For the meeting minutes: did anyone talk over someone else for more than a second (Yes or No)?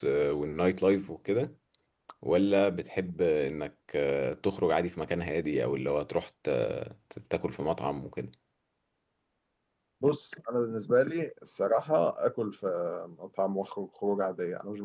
No